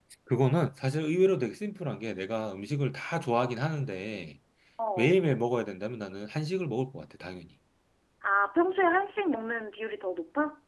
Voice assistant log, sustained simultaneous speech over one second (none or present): none